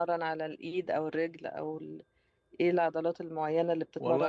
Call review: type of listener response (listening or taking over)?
taking over